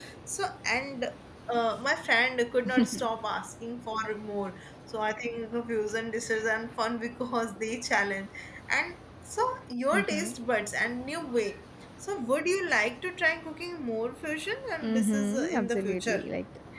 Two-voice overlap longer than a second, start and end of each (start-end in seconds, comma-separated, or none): 14.8-16.3